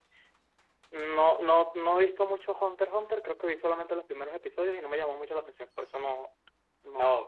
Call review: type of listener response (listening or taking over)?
taking over